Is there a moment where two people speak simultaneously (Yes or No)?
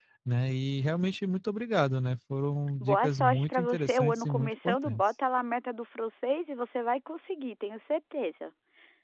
Yes